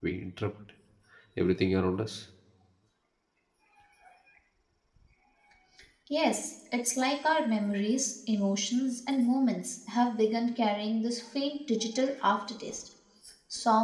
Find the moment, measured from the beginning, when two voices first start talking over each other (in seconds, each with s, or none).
none